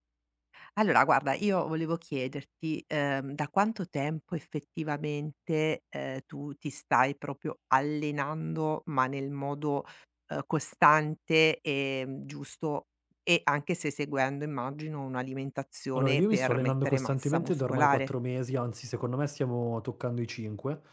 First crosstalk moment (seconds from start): 15.9 s

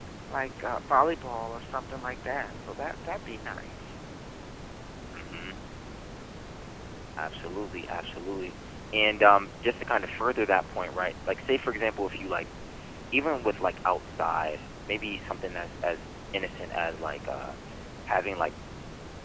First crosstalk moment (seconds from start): none

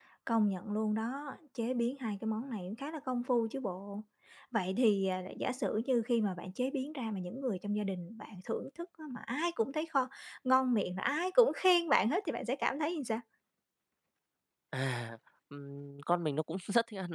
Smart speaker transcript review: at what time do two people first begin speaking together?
none

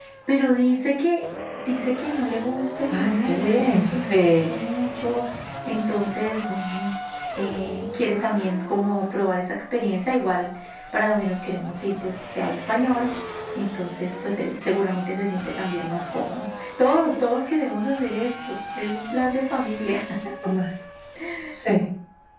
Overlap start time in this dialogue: 2.9 s

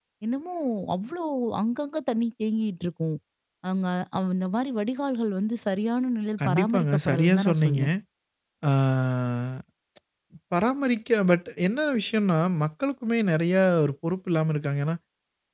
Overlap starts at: 6.4 s

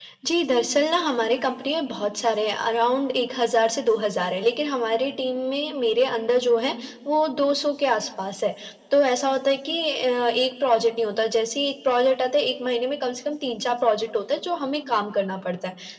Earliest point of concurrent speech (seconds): none

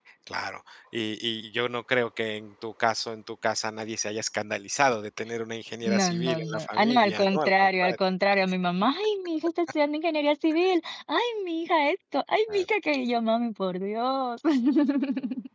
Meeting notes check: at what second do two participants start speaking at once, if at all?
5.8 s

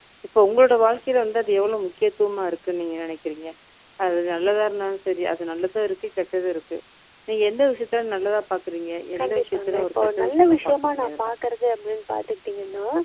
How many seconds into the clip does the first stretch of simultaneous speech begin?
9.2 s

